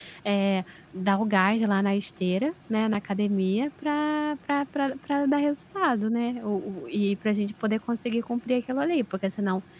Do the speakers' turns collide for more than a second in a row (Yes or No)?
No